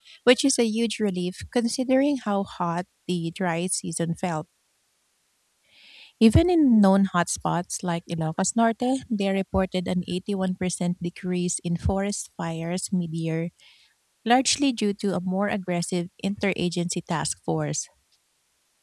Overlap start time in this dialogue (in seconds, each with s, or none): none